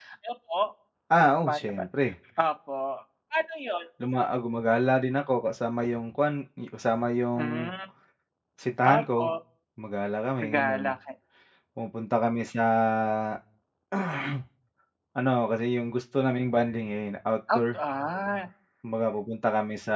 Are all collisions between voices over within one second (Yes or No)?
Yes